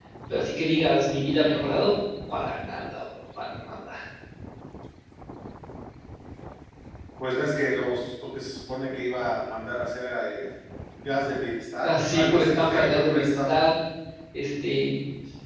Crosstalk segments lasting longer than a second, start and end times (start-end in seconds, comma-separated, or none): 11.8-13.6